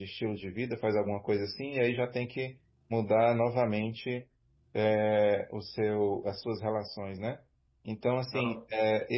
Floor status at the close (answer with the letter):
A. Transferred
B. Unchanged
B